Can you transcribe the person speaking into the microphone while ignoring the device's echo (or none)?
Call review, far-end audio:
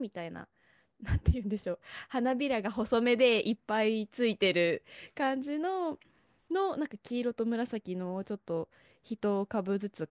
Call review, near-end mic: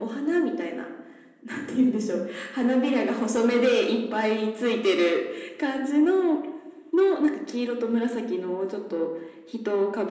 うんうん。